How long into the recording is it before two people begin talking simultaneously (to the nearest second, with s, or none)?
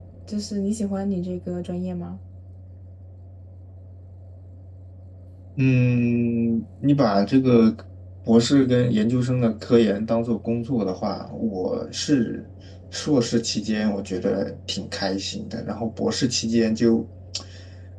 none